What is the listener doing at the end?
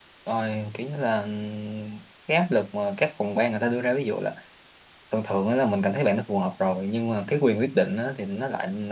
listening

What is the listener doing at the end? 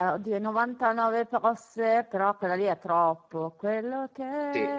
listening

